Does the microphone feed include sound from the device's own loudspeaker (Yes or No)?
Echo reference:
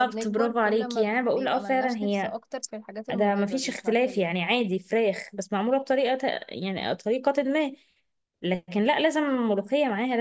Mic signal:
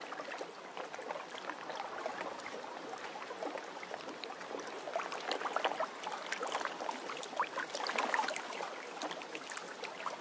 No